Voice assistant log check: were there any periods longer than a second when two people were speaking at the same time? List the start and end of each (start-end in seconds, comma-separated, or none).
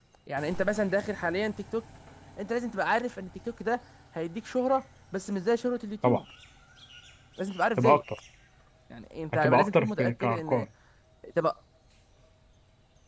9.3-10.7